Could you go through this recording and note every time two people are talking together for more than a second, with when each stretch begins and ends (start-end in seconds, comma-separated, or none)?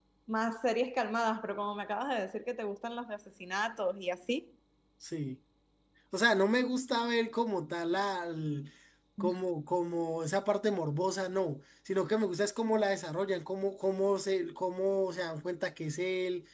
none